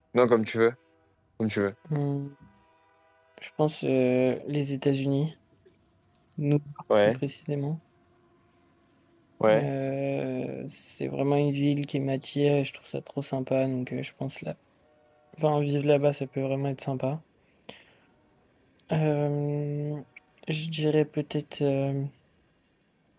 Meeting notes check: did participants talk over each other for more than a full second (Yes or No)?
No